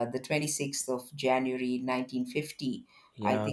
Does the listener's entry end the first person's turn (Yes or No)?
No